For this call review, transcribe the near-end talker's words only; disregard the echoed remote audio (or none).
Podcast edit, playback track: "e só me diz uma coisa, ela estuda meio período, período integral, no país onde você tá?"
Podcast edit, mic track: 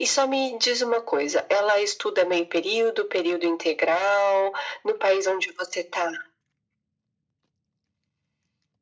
none